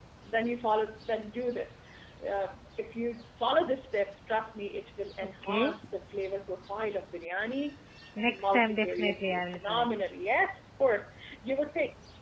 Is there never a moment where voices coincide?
No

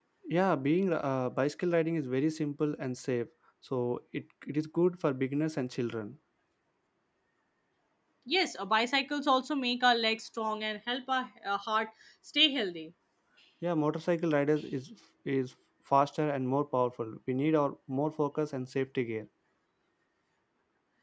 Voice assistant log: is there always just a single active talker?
Yes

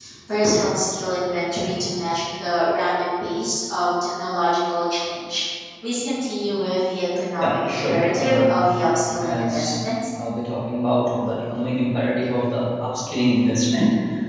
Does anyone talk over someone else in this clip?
Yes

